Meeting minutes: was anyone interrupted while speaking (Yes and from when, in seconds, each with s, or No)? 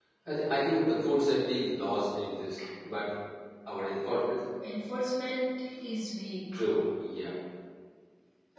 No